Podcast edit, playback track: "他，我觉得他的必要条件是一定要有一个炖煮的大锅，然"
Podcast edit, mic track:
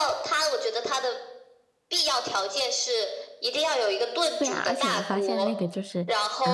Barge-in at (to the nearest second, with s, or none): 4 s